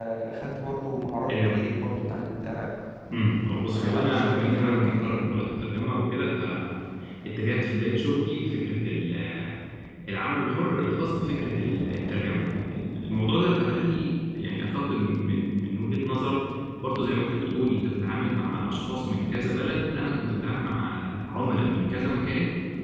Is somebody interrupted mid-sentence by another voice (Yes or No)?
Yes